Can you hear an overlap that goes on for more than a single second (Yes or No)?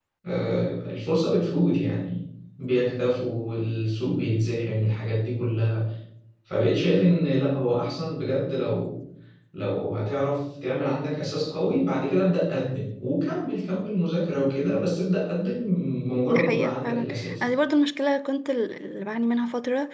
Yes